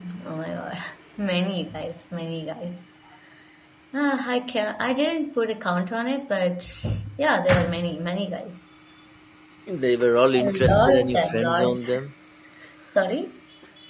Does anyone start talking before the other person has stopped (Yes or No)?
Yes